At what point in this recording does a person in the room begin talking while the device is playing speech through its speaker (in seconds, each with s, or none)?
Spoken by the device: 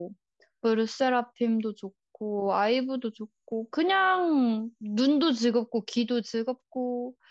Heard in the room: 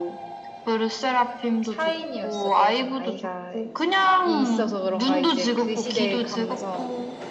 1.6 s